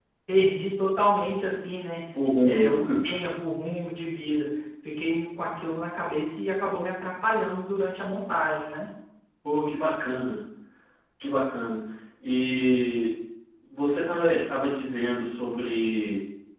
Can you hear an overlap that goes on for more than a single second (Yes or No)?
No